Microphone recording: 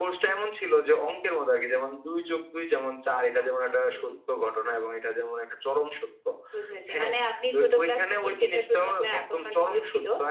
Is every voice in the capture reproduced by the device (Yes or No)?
Yes